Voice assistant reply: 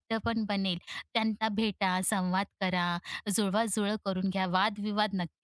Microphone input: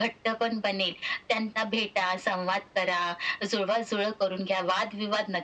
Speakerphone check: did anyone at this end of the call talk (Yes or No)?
No